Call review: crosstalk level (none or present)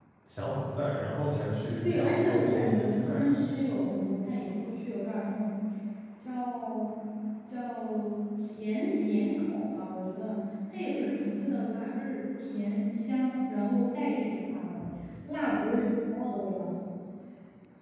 present